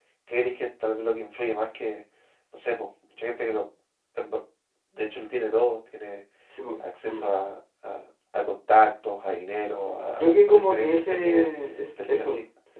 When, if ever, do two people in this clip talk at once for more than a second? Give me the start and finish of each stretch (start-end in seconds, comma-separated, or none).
10.2-11.5